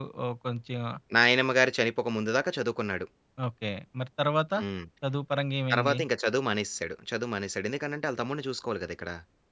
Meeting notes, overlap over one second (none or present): none